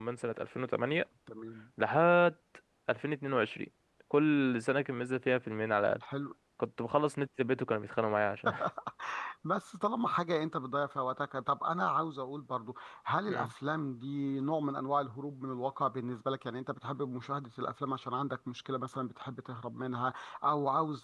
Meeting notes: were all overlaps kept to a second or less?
Yes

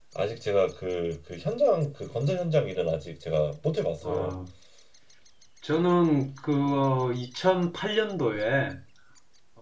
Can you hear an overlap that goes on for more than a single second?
No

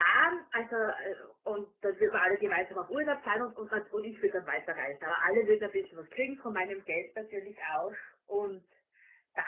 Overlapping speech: No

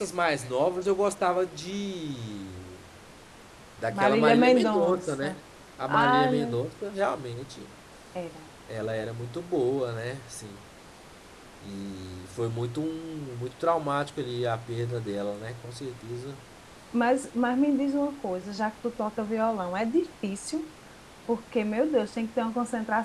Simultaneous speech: Yes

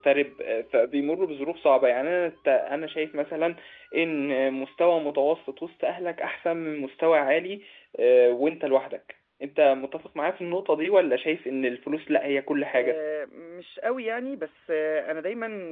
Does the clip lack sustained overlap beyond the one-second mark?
Yes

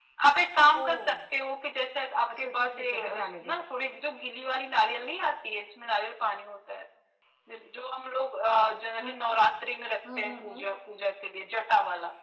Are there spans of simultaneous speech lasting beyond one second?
Yes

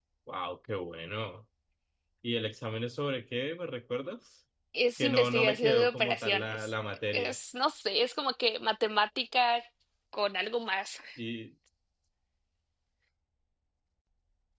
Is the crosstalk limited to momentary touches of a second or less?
No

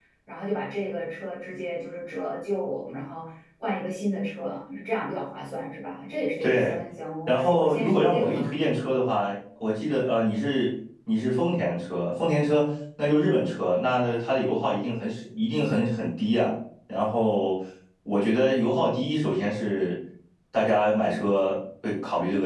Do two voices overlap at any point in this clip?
Yes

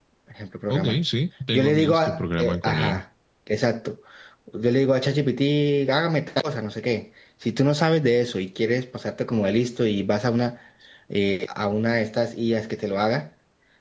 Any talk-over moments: Yes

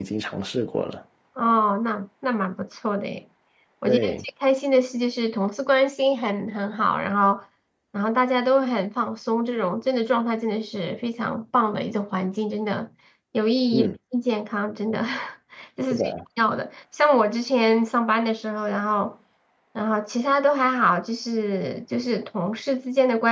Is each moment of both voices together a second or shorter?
Yes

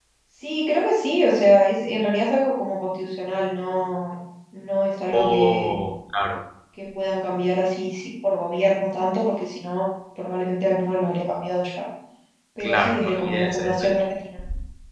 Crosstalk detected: Yes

